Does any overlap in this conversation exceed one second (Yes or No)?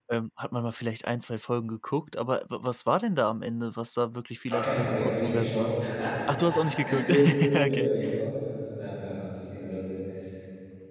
Yes